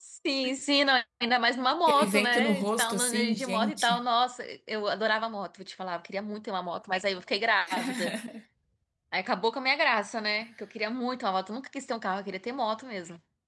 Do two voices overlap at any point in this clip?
Yes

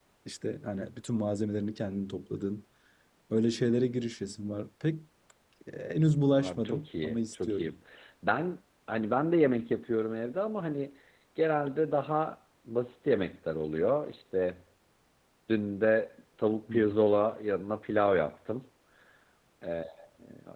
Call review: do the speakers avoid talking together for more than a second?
No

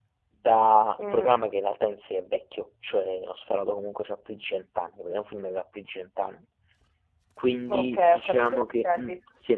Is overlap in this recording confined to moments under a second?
No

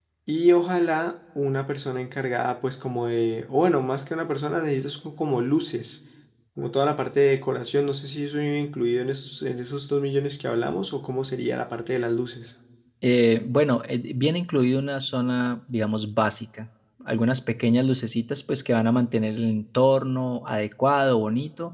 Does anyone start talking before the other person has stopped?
No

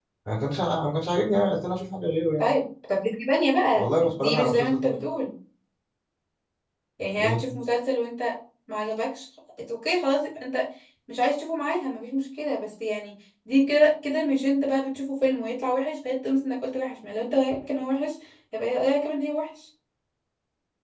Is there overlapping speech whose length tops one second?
Yes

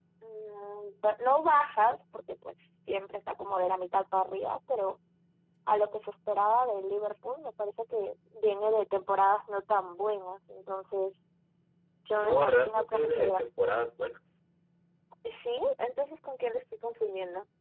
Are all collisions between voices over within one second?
No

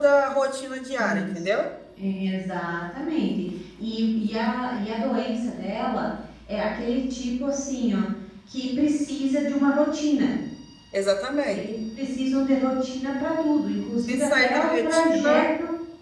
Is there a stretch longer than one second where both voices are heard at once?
Yes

